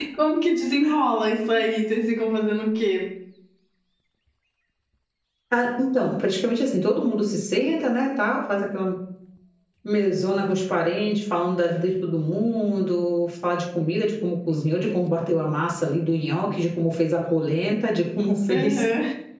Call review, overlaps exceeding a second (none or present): none